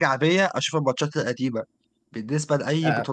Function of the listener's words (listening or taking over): listening